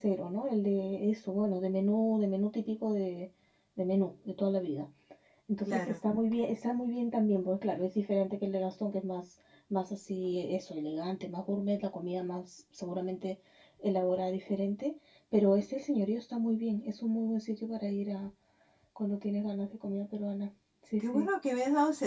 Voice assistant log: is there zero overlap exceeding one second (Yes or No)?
Yes